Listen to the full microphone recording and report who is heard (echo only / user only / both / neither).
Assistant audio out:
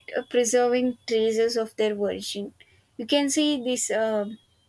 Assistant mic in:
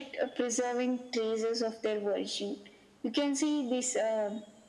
echo only